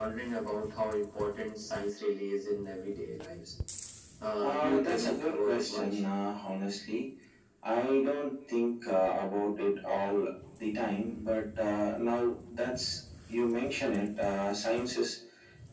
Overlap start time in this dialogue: 4.4 s

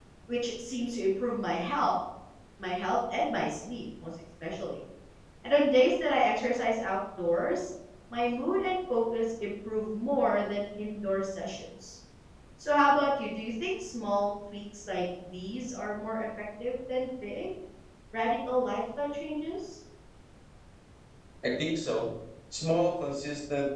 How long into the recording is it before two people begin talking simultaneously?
none

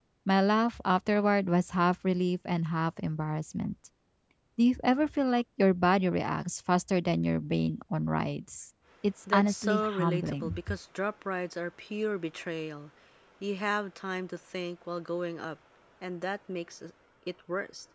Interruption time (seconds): 9.3 s

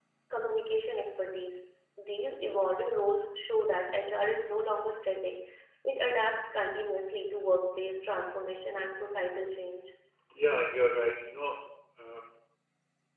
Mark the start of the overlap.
none

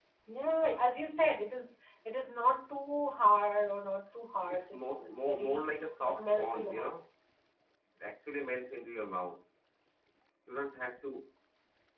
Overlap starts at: 4.5 s

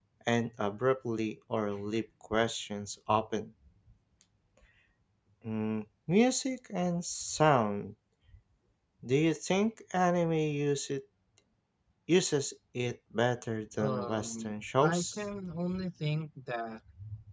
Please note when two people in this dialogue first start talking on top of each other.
13.8 s

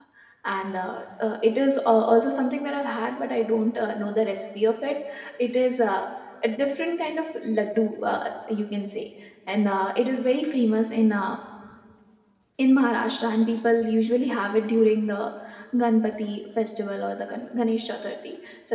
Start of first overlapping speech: none

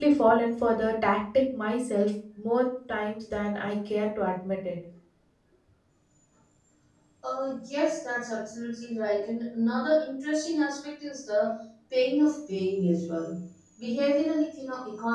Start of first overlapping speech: none

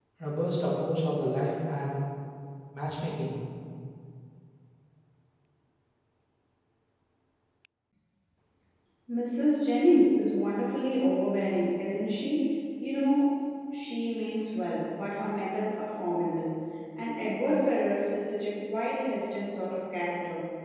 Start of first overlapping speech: none

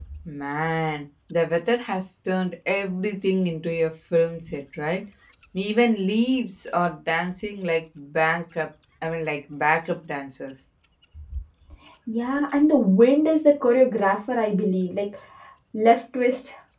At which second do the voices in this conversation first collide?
none

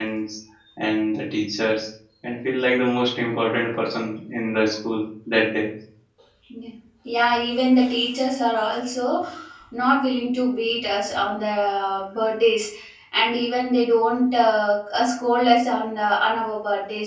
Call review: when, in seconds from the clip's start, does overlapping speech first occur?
none

